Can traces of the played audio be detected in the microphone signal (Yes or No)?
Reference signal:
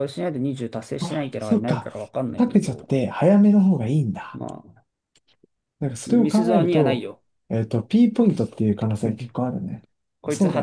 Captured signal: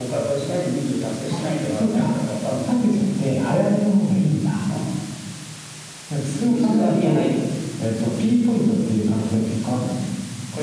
Yes